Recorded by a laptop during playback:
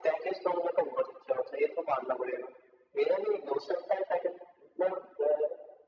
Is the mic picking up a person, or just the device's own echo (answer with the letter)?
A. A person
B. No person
B